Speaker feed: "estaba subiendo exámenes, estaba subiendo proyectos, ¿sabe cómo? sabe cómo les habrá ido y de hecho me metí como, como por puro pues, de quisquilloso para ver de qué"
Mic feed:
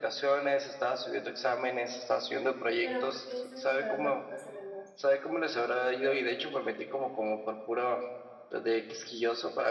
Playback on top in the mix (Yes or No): Yes